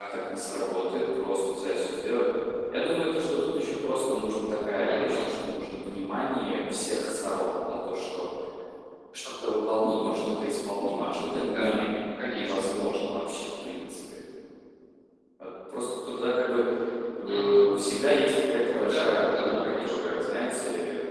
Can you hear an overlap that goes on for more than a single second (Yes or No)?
Yes